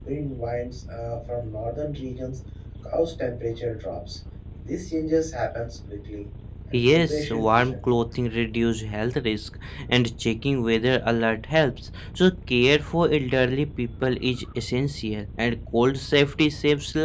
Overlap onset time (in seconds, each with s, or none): 6.7 s